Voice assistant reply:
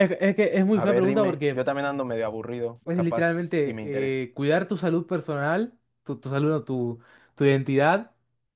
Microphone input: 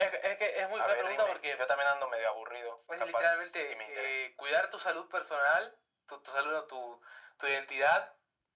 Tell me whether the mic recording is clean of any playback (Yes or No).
No